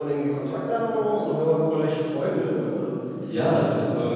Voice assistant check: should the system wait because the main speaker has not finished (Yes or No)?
No